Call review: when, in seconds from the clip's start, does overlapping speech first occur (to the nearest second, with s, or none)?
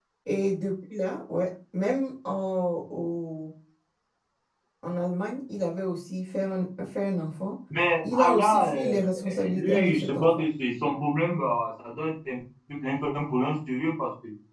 8 s